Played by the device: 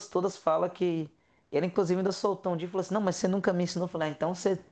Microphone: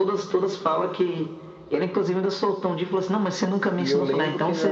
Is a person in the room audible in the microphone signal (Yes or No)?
Yes